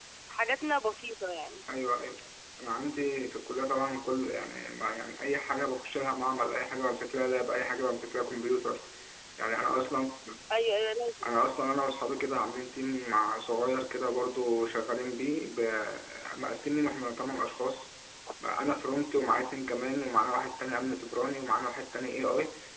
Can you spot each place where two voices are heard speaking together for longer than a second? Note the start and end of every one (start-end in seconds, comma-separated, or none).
none